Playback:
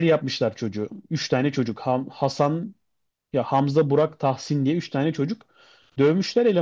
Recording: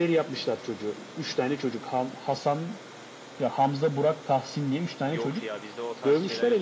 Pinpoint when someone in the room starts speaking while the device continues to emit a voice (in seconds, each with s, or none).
5.1 s